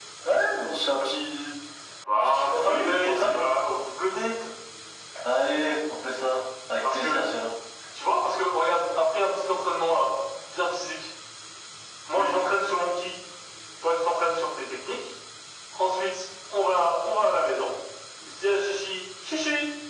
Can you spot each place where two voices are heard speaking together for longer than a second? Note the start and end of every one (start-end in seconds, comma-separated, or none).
2.1-3.4